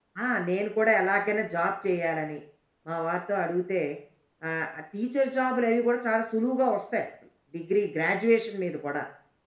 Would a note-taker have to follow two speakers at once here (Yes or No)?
No